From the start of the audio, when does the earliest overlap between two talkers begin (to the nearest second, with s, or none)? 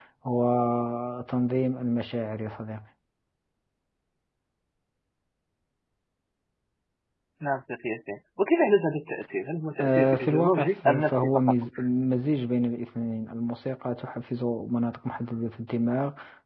10 s